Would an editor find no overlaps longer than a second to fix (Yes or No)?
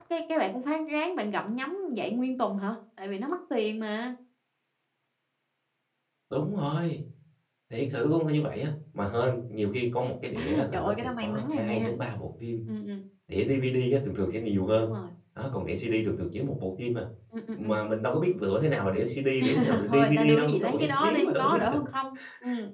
No